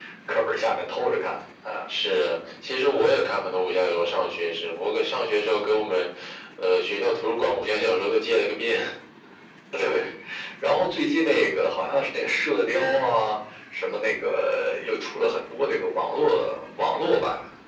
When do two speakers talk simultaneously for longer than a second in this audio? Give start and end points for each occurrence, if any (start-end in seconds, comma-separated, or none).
none